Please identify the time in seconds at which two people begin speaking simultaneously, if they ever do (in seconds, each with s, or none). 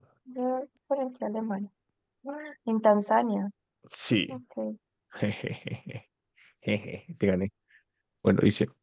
none